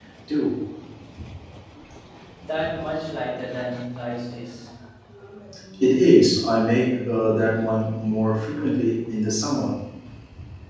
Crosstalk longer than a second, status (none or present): none